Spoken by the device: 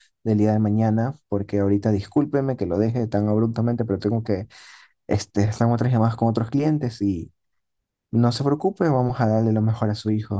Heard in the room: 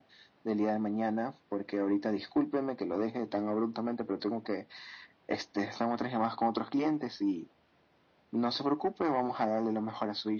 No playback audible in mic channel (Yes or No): No